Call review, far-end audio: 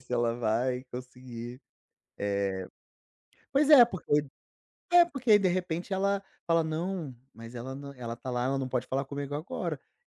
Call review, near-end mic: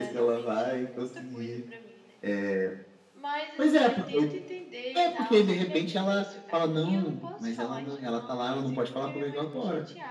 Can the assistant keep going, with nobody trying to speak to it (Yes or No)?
No